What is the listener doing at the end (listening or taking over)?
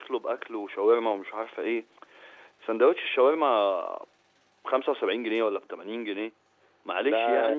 listening